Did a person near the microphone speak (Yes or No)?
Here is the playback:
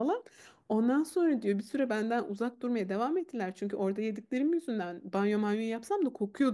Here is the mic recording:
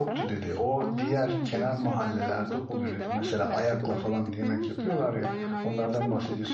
Yes